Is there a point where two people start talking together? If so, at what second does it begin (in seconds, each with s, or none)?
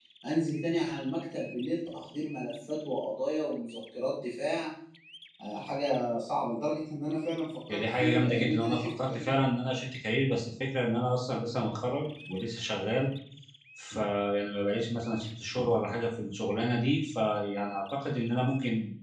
7.7 s